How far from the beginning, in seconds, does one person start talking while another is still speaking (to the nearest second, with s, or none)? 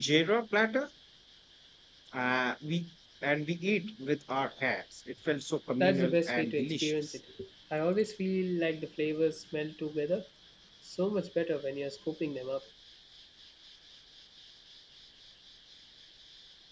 6 s